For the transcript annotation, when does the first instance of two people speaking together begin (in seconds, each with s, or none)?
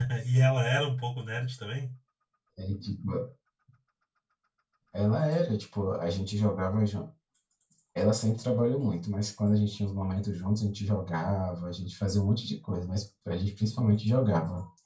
none